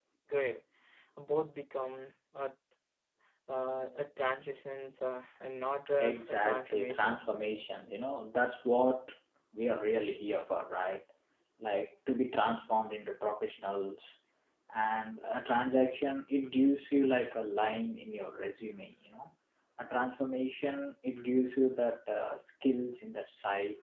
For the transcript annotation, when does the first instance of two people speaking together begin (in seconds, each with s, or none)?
6.0 s